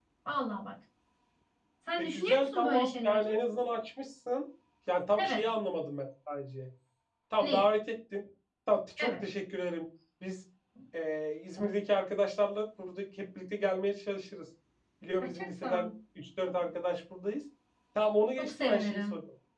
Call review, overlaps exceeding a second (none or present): present